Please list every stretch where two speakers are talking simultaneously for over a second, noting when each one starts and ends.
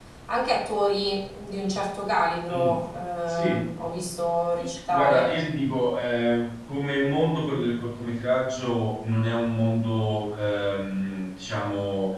none

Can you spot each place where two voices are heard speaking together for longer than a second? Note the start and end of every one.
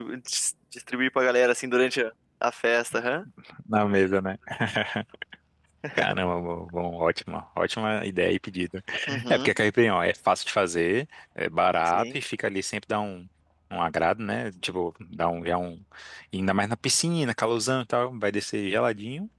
none

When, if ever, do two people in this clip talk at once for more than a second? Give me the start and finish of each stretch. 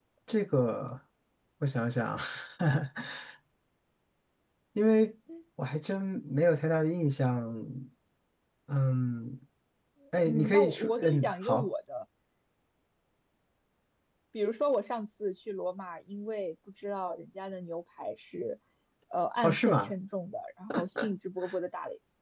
10.3-11.7

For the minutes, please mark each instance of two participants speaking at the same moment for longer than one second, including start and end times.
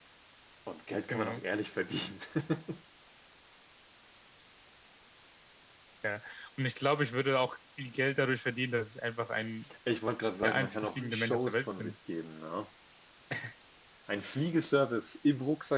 10.4-11.9

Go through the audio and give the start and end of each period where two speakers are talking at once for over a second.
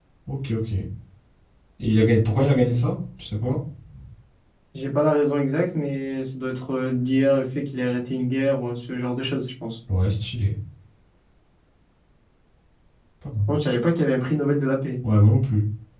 none

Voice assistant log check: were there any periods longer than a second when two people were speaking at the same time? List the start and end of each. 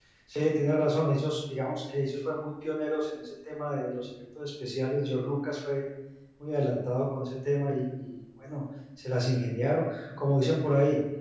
none

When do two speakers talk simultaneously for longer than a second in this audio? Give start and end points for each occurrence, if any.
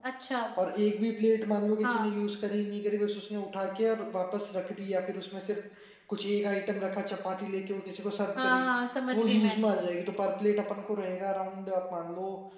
none

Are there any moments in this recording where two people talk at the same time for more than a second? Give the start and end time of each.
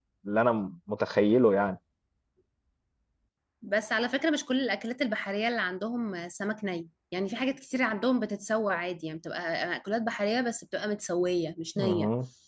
none

